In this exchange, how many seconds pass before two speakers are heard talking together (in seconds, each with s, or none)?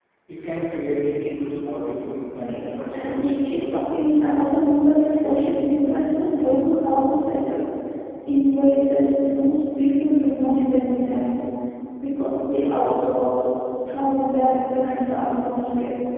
2.4 s